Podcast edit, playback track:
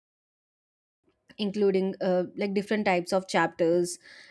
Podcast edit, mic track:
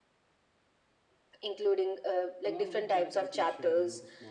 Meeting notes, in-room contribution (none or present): present